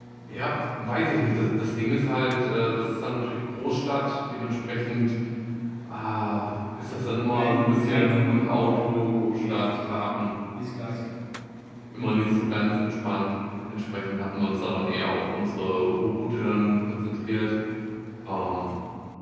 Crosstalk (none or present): present